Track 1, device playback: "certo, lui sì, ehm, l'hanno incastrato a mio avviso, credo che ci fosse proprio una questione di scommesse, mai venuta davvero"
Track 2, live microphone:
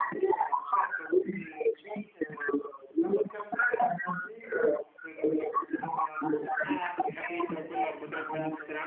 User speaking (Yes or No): Yes